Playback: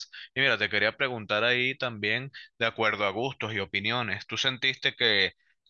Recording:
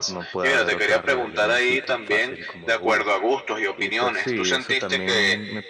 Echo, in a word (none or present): present